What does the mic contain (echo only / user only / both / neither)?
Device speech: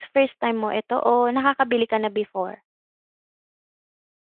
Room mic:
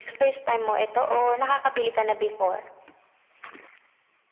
echo only